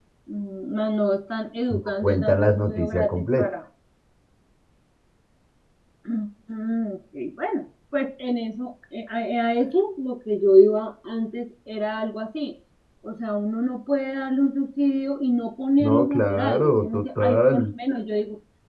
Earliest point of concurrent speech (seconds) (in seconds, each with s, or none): 1.7 s